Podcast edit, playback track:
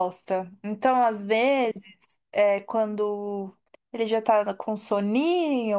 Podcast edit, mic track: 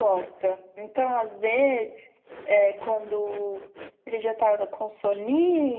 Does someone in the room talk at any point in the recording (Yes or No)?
No